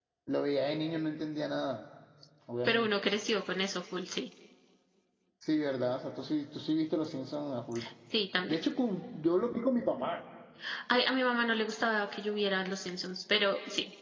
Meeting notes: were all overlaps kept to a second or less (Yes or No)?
Yes